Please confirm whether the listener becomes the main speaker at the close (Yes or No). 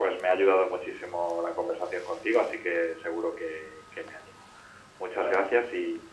No